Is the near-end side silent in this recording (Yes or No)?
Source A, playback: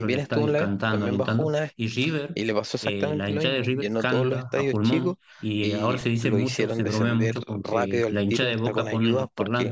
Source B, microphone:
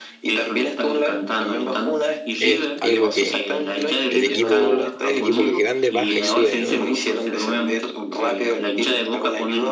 No